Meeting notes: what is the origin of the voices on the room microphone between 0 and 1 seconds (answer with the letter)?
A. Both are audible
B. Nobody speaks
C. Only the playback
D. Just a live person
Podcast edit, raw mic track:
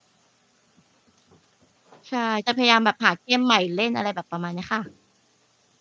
B